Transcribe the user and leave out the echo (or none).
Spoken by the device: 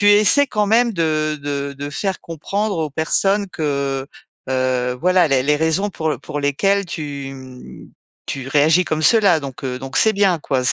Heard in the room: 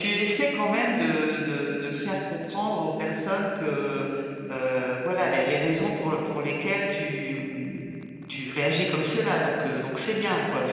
none